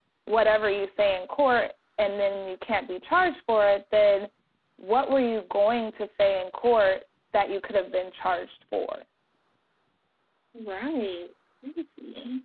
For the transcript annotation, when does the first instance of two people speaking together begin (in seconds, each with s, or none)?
none